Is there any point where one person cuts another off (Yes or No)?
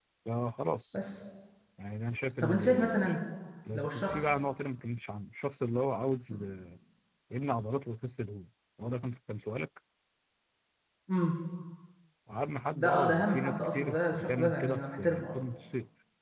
Yes